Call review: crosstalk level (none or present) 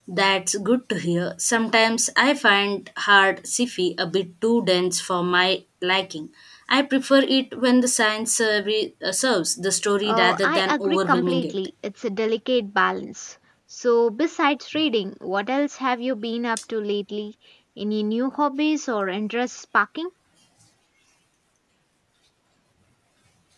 present